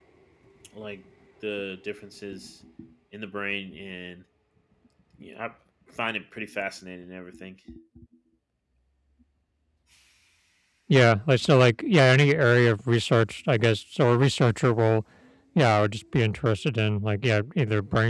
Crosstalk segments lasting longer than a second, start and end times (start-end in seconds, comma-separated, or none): none